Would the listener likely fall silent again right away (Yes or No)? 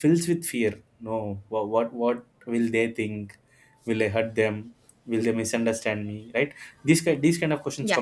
Yes